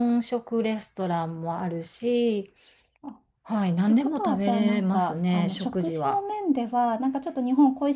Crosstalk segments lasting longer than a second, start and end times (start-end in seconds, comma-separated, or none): 3.9-6.2